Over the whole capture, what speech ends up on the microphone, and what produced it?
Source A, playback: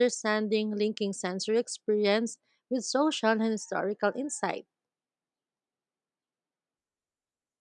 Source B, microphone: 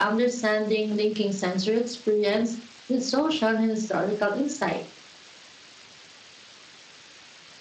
echo only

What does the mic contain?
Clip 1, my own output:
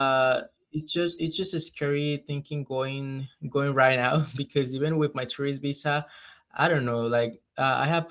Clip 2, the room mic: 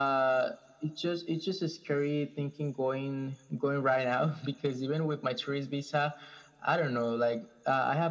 echo only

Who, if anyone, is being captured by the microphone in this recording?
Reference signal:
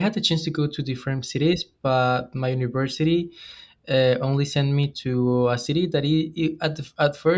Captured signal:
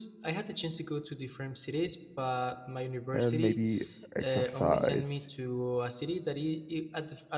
both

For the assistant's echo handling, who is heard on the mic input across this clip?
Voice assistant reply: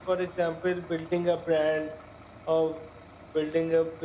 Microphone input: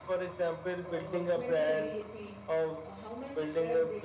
both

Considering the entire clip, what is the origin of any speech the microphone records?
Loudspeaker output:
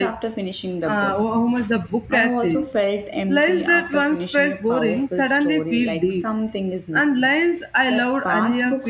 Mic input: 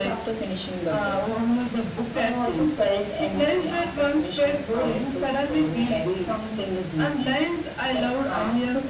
echo only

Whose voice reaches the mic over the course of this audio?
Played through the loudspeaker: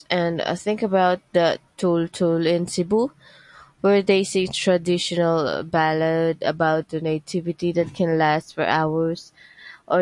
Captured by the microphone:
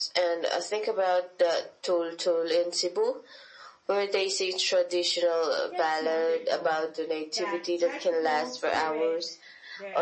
both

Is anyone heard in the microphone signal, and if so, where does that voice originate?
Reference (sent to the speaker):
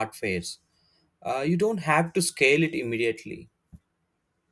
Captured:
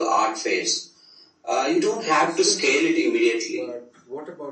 both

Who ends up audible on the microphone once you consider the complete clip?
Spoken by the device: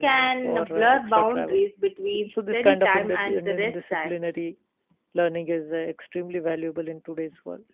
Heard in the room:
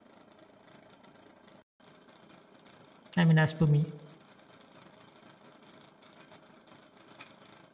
user only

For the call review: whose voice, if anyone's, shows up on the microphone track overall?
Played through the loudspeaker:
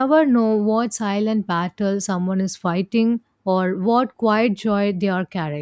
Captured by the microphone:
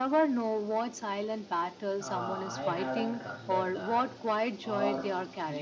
both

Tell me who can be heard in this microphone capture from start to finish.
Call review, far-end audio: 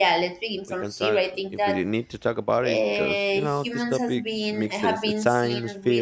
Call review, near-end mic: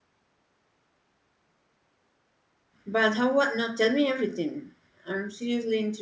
user only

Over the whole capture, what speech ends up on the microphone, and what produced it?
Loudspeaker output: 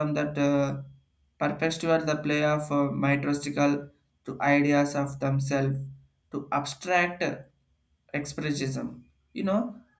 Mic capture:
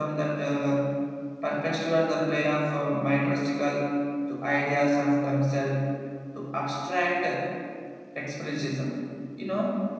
echo only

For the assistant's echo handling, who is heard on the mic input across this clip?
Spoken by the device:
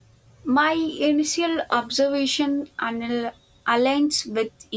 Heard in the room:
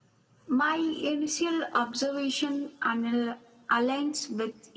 echo only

